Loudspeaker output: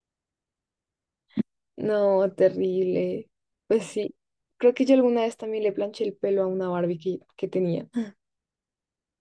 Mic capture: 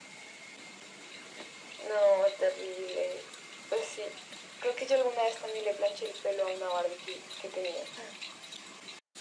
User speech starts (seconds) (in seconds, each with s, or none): none